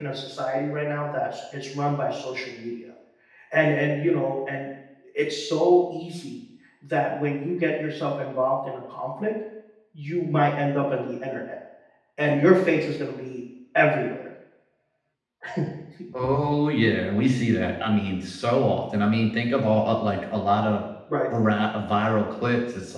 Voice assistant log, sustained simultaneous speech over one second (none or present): none